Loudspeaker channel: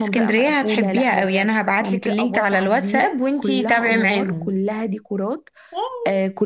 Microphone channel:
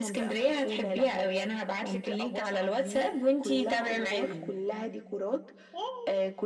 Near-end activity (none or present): none